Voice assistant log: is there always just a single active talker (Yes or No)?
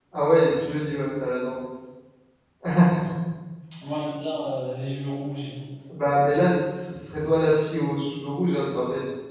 Yes